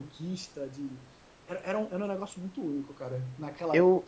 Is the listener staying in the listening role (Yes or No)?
No